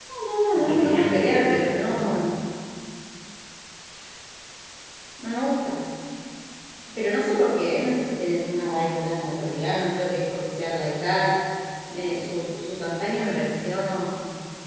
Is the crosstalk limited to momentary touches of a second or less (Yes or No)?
No